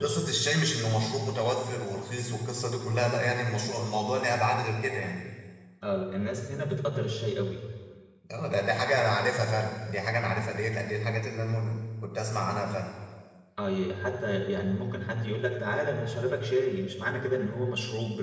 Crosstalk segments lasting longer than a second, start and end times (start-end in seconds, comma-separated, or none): none